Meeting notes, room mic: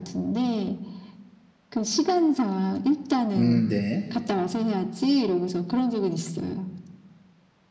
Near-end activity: present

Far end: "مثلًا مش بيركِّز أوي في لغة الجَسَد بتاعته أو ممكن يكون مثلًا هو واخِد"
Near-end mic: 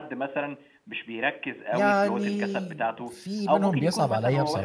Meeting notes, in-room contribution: present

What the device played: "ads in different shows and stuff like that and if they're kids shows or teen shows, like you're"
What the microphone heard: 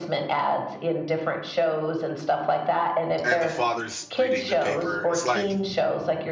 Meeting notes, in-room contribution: present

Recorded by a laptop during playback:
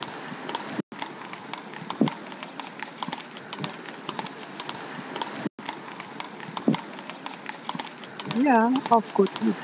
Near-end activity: present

